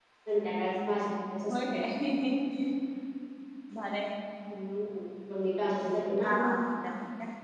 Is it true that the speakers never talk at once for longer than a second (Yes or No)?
Yes